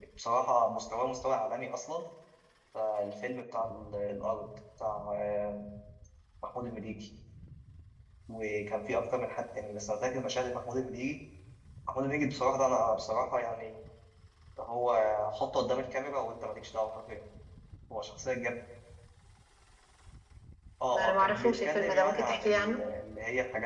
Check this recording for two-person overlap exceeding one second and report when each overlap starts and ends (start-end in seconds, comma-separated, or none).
20.9-22.8